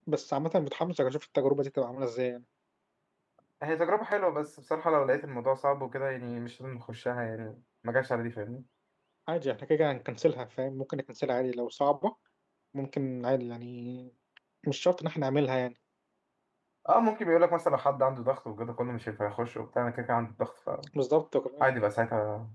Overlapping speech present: No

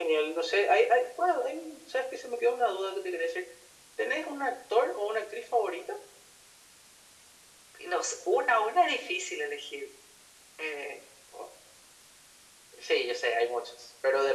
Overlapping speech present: No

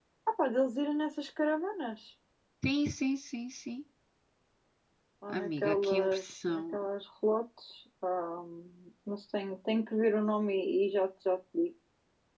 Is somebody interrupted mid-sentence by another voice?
Yes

